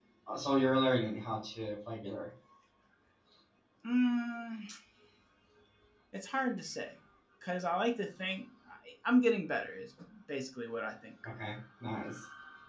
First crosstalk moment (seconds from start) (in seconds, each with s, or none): none